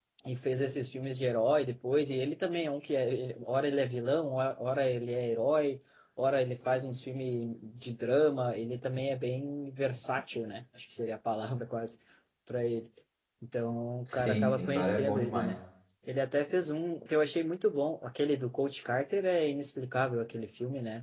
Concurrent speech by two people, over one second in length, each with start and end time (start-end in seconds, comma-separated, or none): 14.1-15.5